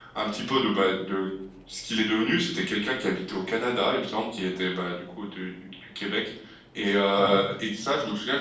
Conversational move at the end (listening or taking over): listening